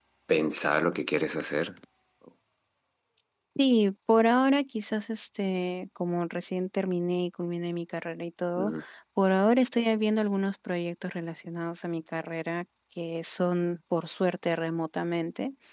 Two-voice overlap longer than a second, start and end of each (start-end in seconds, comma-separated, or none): none